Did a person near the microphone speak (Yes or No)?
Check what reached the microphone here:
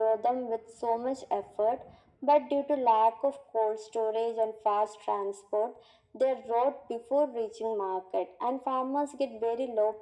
No